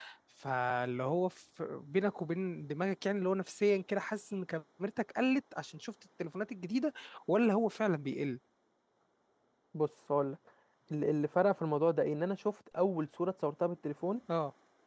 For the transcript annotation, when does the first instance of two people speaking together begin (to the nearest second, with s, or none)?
none